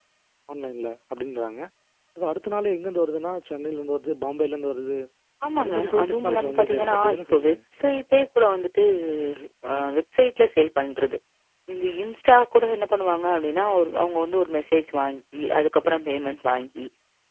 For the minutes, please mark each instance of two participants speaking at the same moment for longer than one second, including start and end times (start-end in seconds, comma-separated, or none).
5.6-7.6